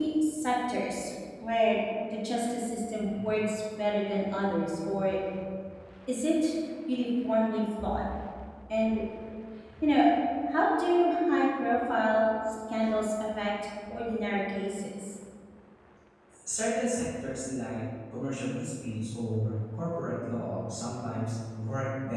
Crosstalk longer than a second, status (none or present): none